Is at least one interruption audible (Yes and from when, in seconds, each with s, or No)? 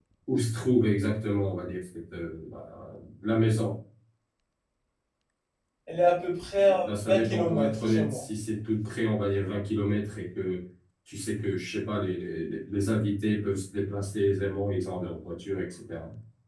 Yes, from 6.8 s